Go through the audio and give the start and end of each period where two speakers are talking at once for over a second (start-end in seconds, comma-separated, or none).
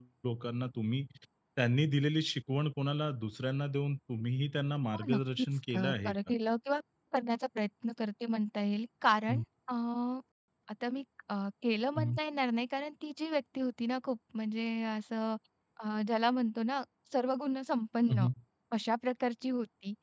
4.9-6.2